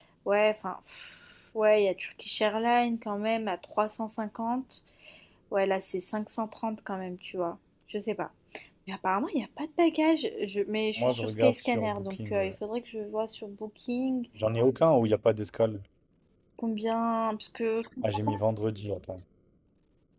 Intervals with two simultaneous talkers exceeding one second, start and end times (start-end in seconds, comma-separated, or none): 11.0-12.5